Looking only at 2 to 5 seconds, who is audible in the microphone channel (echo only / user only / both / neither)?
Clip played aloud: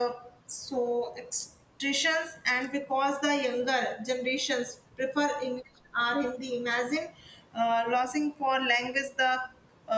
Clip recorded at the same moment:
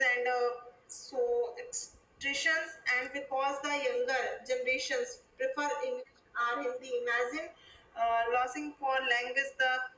echo only